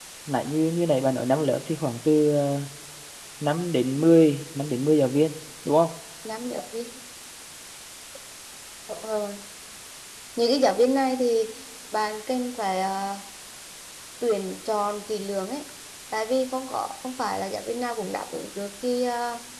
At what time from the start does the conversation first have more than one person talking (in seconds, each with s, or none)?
none